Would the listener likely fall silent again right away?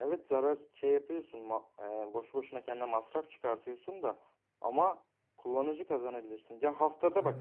Yes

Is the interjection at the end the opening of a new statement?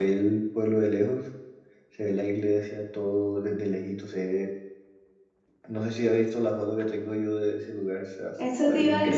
Yes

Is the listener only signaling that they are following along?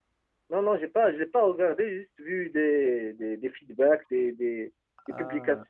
Yes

